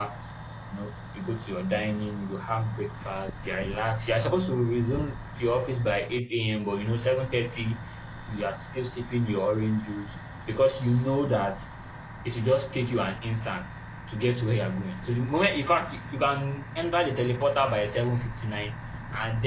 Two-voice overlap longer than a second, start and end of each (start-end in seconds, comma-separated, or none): none